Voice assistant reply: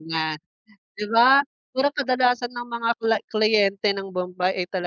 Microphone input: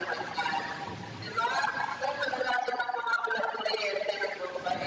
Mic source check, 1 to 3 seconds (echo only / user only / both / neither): echo only